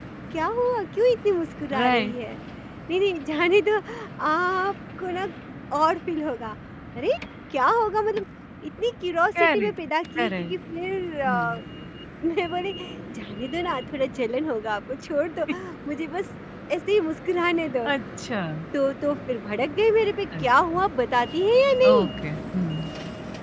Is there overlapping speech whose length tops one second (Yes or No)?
No